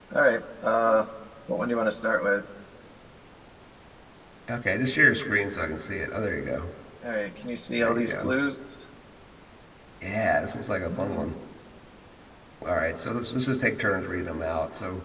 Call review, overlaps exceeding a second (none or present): none